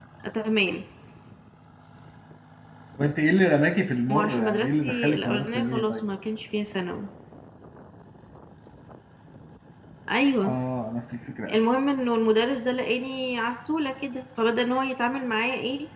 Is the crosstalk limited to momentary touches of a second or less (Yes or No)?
No